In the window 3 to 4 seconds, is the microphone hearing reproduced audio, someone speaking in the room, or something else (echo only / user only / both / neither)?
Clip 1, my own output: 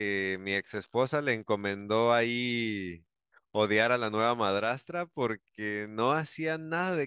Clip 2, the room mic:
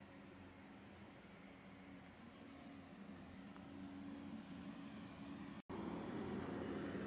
neither